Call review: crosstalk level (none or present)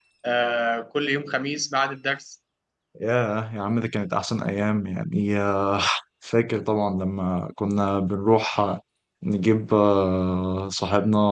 none